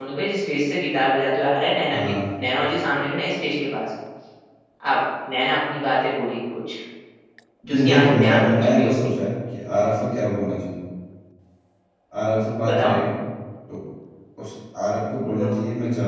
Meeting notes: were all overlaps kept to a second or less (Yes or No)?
No